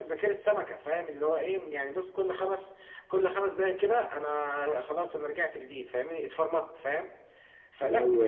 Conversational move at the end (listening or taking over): listening